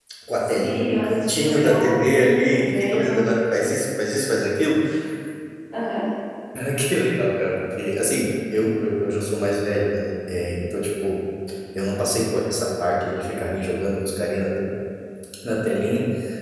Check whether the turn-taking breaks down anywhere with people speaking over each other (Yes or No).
Yes